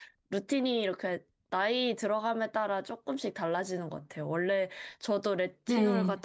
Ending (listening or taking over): listening